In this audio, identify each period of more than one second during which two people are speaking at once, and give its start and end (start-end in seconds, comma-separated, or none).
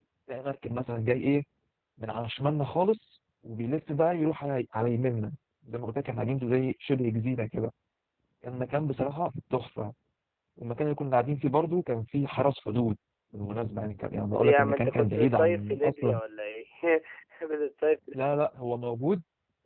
14.3-16.2